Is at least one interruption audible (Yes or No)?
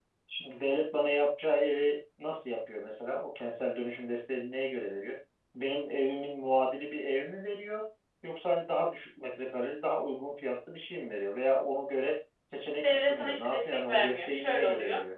Yes